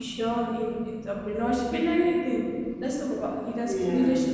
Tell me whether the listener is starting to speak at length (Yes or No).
No